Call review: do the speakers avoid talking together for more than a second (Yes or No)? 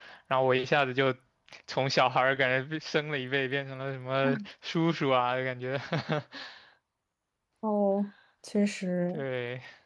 Yes